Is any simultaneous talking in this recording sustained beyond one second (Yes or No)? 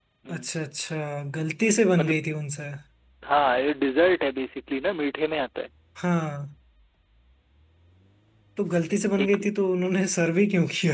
No